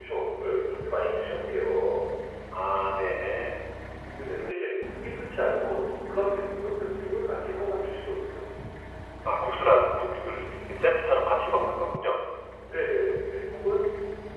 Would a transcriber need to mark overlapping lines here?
No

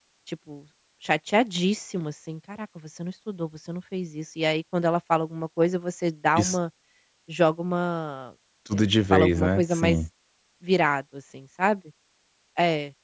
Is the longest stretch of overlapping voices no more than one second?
No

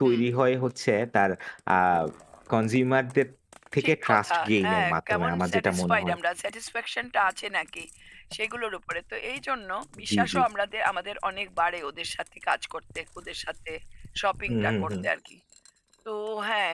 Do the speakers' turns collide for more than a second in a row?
Yes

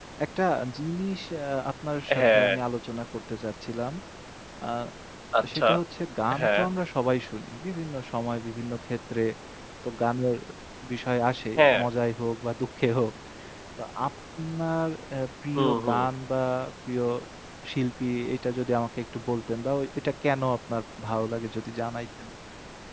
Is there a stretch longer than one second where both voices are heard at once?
No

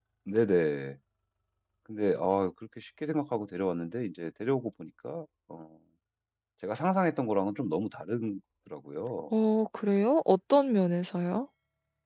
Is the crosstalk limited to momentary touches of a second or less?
Yes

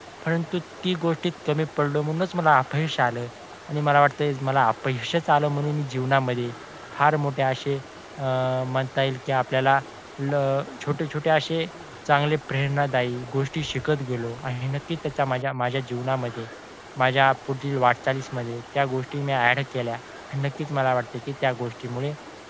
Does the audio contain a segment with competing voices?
No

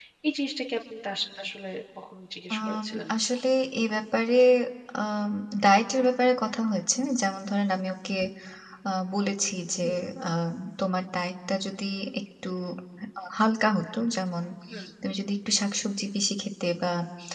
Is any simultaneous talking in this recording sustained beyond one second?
No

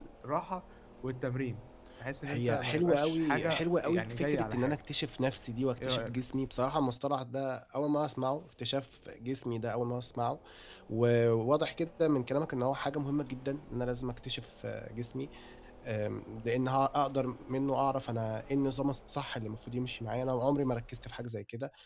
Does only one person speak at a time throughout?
No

